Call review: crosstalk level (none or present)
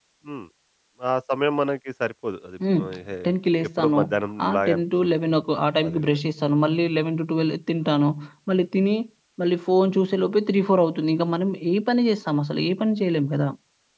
present